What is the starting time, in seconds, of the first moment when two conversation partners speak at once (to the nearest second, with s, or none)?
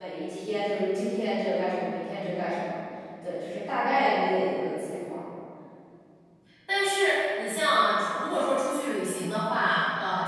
none